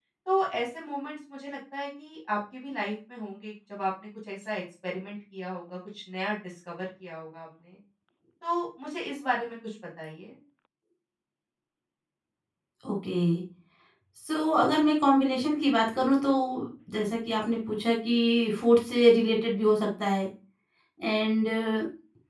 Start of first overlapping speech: none

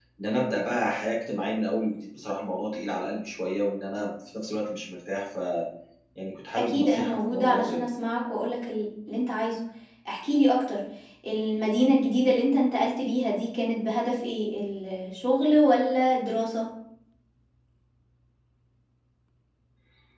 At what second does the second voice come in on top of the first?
6.5 s

